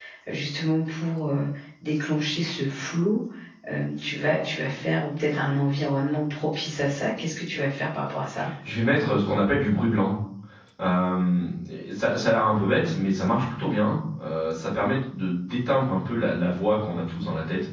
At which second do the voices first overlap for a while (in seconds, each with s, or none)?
none